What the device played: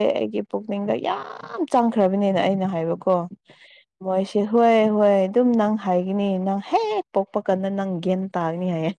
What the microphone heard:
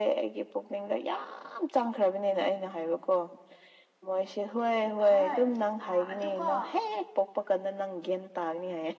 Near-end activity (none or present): present